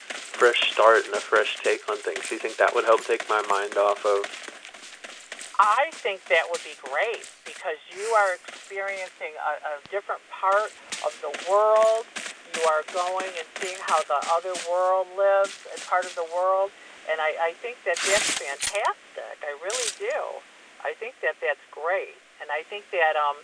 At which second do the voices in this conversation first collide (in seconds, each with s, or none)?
none